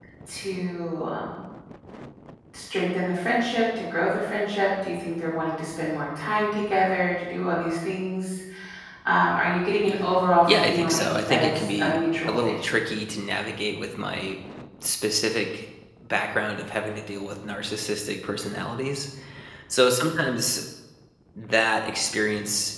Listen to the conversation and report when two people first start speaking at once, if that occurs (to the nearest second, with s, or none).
10 s